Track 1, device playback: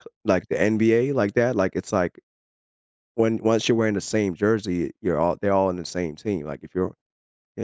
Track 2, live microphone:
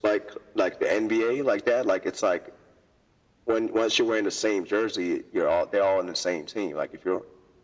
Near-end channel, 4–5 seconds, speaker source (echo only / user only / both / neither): echo only